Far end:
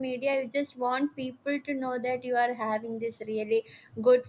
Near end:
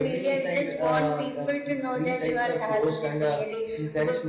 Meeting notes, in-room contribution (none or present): present